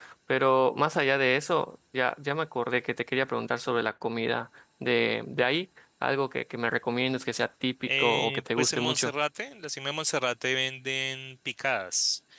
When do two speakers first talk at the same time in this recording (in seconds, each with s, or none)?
7.9 s